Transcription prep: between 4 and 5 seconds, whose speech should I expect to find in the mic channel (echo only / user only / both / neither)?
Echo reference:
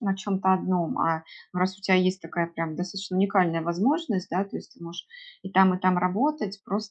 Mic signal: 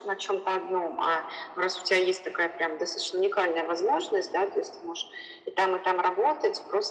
echo only